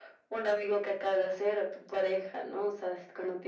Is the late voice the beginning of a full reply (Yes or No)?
No